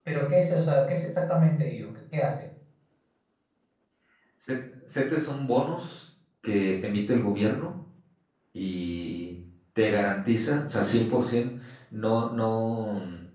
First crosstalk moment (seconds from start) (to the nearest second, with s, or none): none